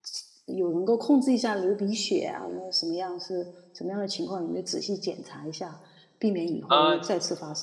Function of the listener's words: listening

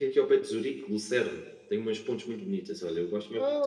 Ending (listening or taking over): taking over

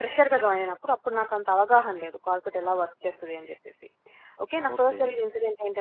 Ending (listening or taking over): listening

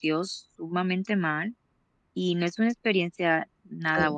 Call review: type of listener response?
taking over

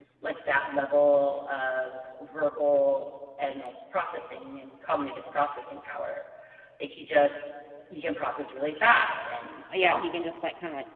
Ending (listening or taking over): taking over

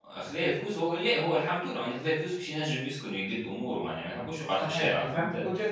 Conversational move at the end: taking over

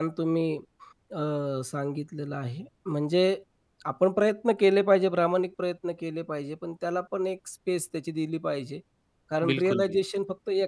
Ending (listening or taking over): listening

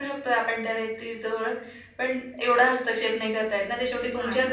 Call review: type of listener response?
listening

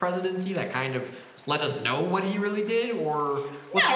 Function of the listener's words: taking over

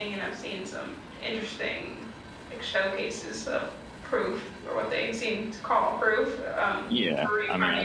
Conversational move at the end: taking over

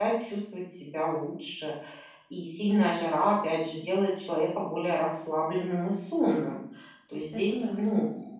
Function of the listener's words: listening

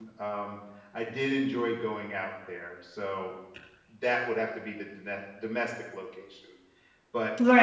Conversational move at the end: taking over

